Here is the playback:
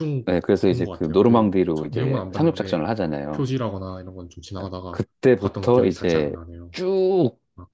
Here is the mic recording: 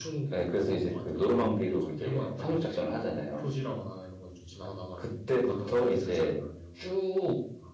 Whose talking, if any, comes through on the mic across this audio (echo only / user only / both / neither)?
echo only